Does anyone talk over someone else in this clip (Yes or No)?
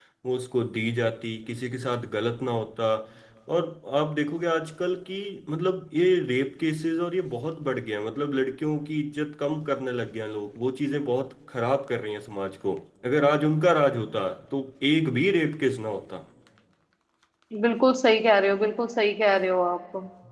No